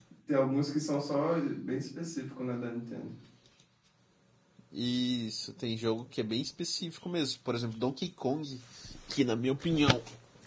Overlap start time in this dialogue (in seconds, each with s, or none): none